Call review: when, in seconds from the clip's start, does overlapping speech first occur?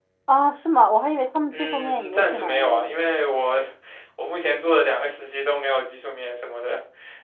1.5 s

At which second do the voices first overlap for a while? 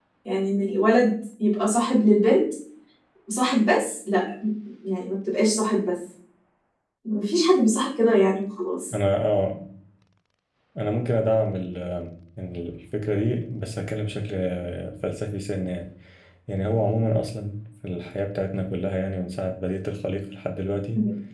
none

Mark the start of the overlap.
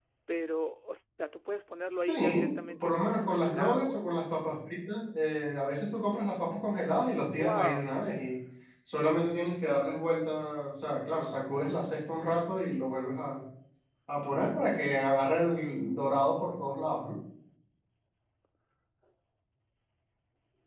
2.0 s

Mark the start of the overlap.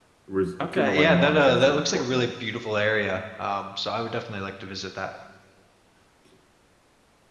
0.6 s

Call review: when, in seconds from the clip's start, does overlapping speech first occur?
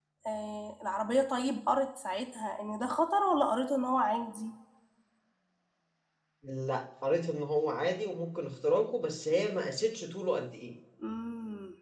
none

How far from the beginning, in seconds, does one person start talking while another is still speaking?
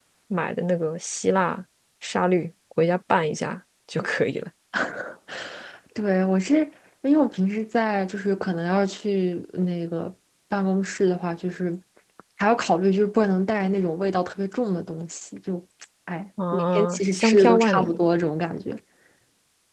16.5 s

